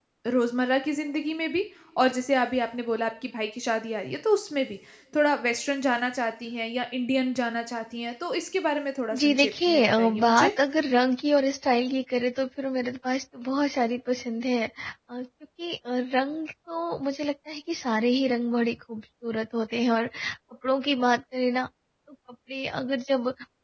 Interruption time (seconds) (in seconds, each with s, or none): 9.1 s